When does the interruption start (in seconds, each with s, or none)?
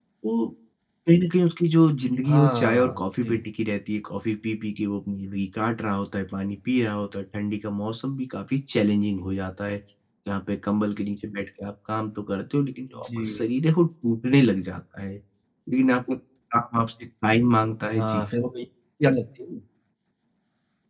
2.2 s